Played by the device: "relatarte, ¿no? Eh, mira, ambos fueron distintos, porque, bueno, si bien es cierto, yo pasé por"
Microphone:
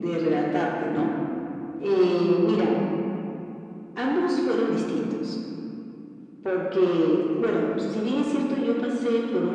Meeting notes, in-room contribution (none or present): none